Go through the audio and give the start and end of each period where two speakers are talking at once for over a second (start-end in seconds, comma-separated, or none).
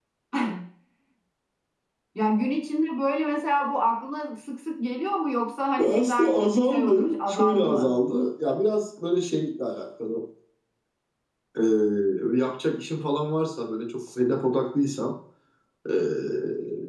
5.8-7.9